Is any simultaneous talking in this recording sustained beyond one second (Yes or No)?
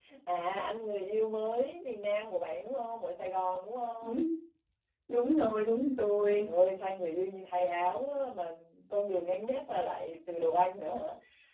No